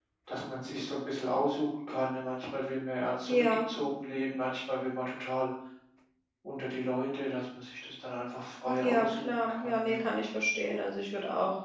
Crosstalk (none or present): present